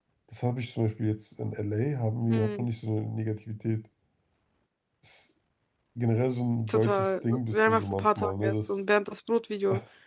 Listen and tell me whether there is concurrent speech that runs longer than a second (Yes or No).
Yes